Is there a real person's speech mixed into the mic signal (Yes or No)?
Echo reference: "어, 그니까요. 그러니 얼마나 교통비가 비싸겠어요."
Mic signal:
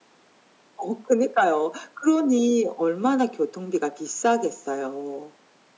No